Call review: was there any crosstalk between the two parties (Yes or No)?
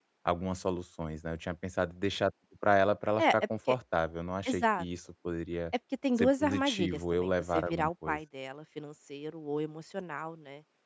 Yes